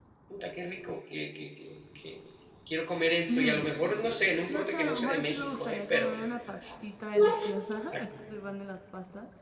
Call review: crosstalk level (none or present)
present